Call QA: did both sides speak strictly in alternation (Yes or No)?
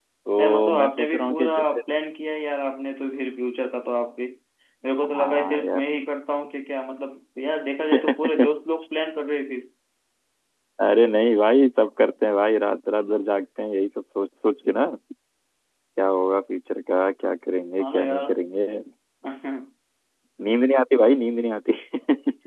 No